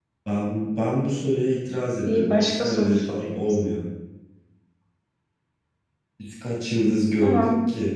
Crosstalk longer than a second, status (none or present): present